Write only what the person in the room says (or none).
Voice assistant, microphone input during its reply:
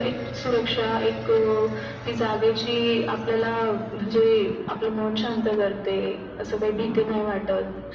none